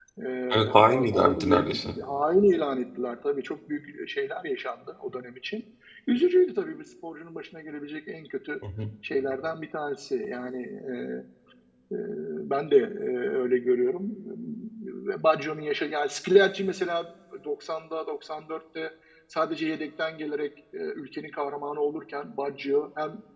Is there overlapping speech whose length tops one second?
Yes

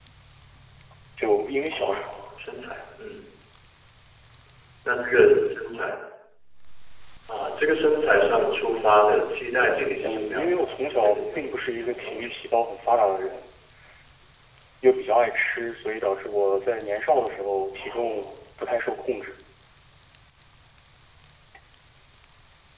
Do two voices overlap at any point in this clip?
Yes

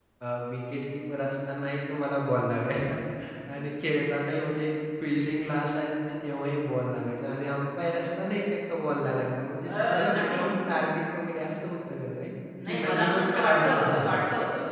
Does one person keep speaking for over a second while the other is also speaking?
Yes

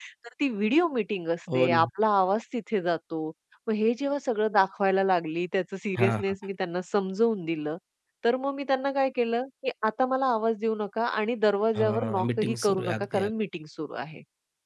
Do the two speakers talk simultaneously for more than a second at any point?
Yes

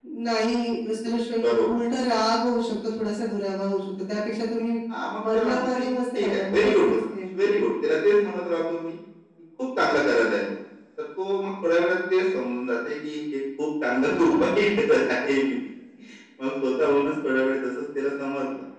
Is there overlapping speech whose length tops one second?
Yes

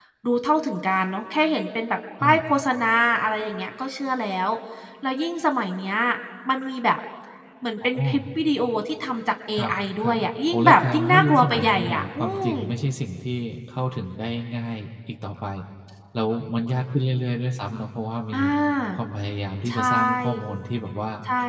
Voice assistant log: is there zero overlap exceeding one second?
No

